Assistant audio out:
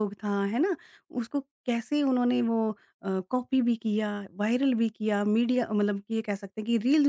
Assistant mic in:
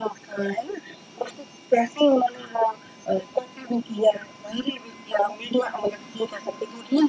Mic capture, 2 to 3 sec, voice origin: echo only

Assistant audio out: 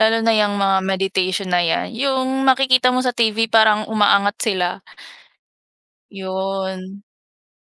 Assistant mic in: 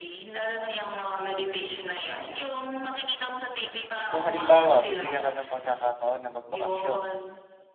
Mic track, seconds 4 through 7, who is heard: both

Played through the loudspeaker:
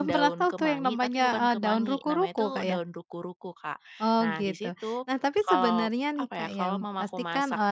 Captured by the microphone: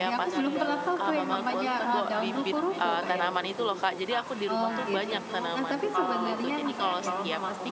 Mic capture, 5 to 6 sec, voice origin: both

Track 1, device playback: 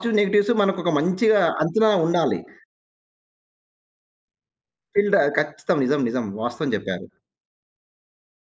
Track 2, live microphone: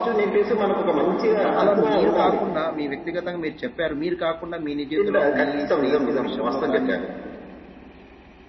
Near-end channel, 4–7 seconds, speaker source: both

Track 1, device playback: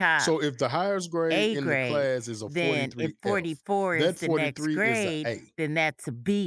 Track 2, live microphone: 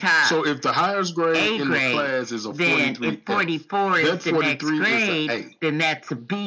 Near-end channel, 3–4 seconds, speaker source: echo only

